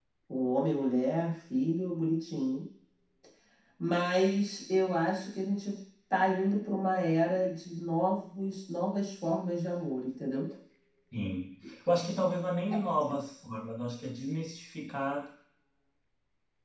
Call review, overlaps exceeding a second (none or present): none